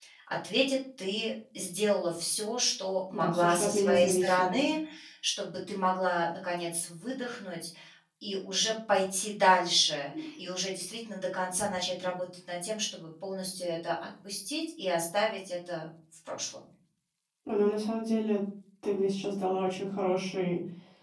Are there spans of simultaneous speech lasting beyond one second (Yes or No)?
Yes